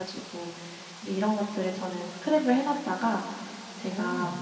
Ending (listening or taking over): listening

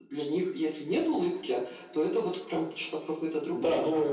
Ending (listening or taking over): taking over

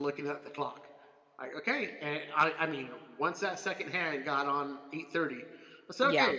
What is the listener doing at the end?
listening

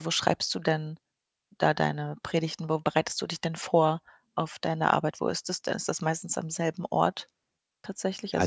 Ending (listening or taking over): taking over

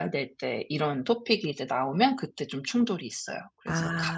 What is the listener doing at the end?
taking over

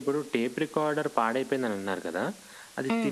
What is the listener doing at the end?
listening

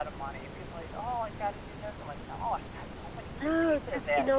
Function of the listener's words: taking over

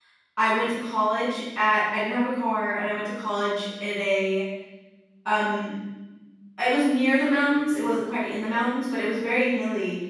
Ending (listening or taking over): listening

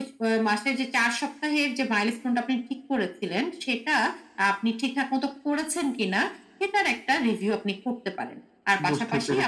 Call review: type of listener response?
listening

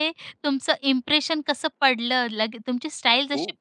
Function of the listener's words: listening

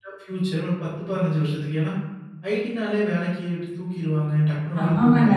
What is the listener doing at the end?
taking over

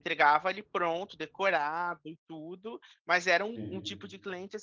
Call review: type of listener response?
listening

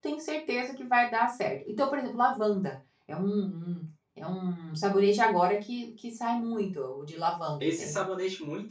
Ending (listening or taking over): taking over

